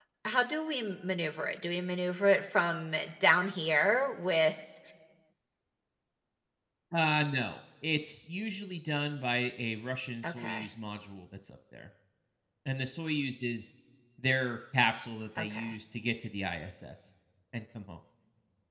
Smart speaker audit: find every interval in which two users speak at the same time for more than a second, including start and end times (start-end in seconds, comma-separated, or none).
none